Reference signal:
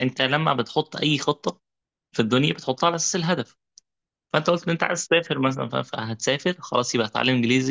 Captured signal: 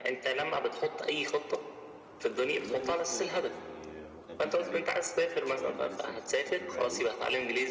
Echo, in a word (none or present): present